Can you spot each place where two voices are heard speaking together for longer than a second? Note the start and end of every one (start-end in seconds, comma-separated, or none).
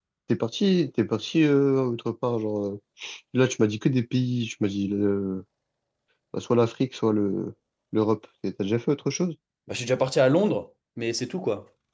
none